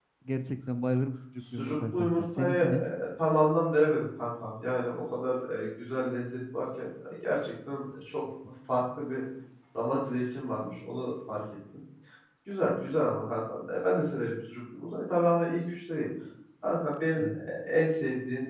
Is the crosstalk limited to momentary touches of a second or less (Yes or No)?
No